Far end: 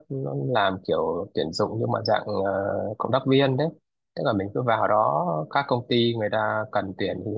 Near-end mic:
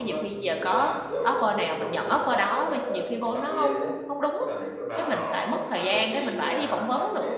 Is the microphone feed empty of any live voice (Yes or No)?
No